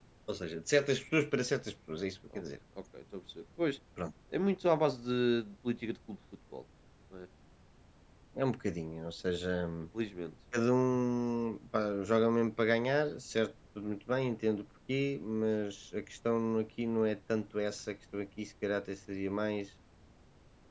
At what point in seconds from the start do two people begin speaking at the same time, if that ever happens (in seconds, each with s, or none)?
none